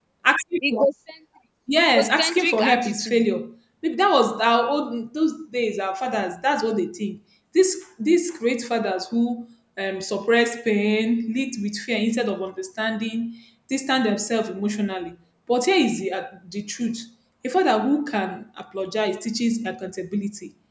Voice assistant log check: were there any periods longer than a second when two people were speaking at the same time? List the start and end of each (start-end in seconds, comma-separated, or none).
1.9-3.2